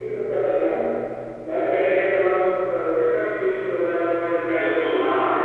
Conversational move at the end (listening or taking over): taking over